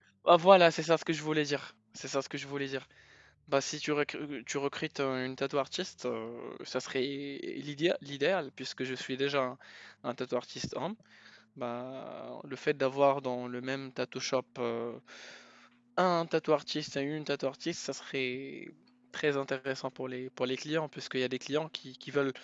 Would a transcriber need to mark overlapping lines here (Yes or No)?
No